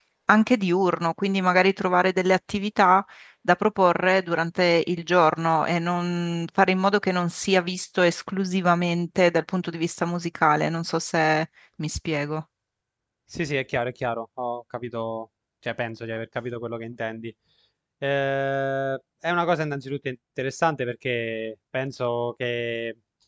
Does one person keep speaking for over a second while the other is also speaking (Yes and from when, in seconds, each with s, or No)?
No